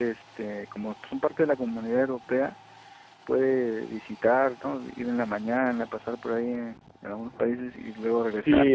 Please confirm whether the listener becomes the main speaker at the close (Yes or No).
Yes